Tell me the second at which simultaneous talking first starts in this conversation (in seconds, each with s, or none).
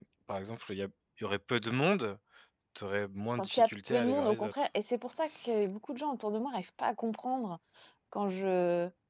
3.4 s